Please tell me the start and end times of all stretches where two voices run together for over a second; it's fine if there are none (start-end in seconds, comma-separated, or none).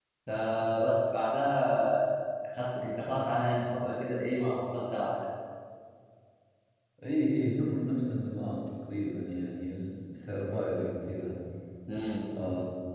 none